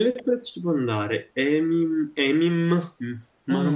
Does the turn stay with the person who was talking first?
No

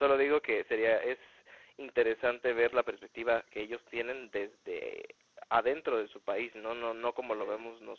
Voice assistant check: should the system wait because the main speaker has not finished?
Yes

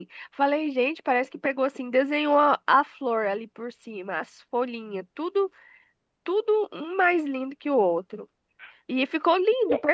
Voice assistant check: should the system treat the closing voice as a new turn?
No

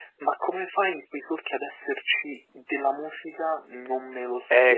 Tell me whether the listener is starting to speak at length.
Yes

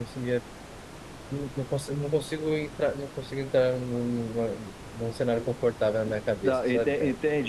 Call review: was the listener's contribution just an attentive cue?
No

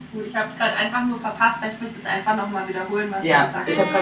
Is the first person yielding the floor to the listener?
Yes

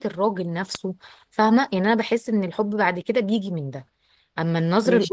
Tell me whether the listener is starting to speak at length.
Yes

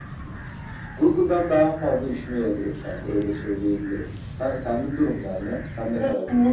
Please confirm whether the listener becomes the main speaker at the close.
Yes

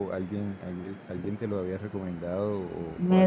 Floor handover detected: Yes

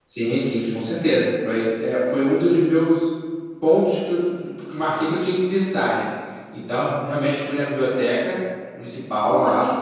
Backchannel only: No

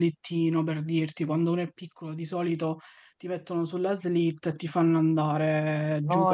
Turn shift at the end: Yes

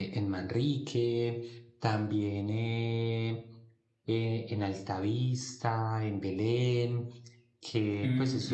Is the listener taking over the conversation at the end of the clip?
Yes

